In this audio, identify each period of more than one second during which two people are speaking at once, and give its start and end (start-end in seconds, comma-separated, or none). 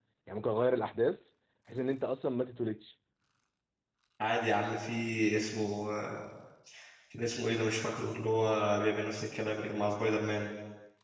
none